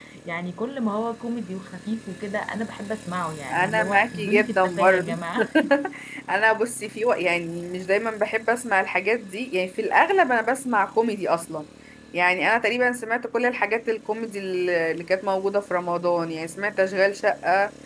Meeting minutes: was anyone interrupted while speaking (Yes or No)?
Yes